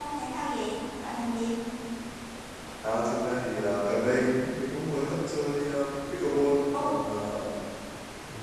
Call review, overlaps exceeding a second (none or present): none